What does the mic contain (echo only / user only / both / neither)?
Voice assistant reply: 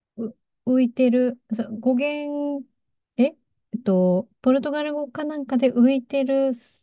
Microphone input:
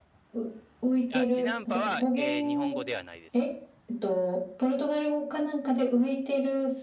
both